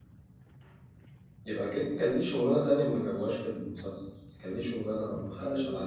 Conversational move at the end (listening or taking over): taking over